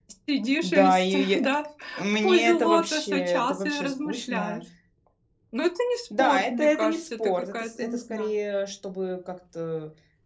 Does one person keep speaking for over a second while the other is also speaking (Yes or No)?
Yes